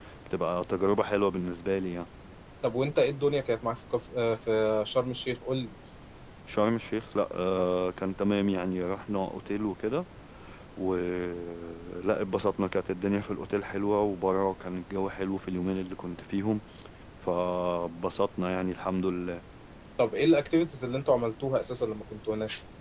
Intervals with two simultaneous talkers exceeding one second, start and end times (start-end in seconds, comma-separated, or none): none